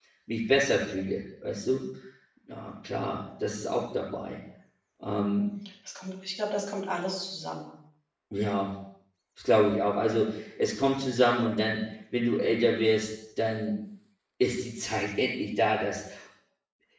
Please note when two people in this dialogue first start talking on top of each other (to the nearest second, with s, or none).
none